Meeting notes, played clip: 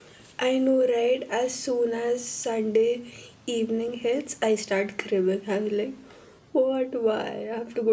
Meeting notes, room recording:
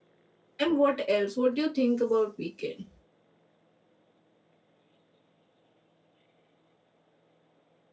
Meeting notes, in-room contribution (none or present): present